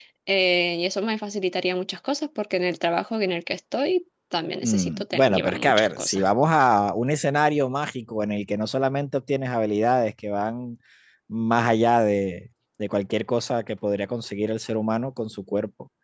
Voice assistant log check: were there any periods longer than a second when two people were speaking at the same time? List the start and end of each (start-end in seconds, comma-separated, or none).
4.6-6.2